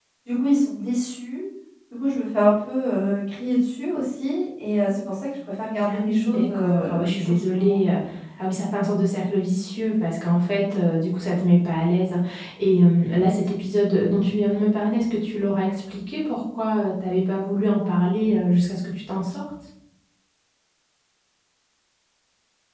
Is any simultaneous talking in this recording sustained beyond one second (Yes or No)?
Yes